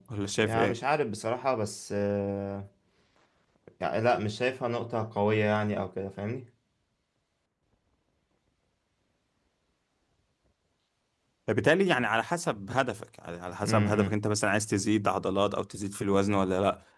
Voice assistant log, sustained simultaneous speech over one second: none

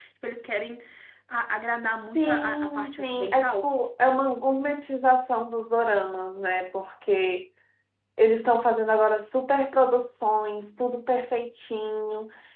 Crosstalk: present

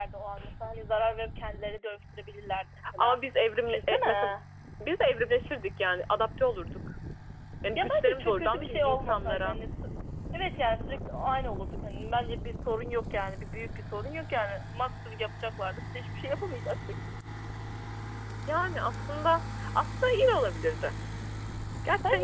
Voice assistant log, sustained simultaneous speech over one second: present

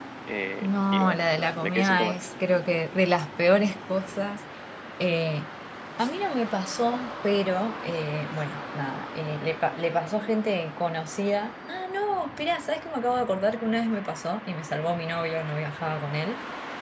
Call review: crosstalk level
present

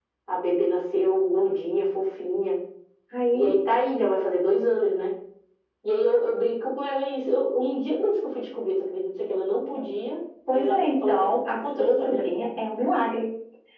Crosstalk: present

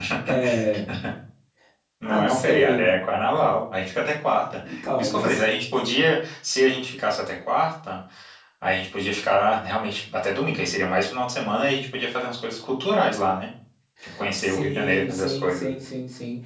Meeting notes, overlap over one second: present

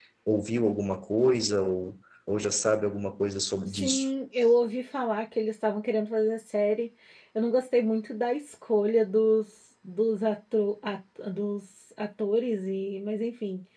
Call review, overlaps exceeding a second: none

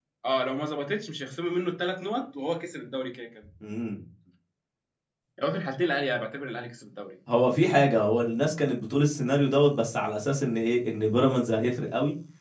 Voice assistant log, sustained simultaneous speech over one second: none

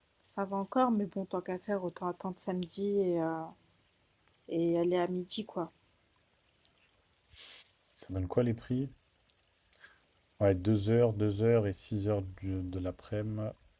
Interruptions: none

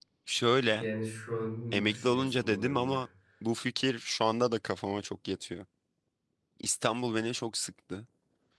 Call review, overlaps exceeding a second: present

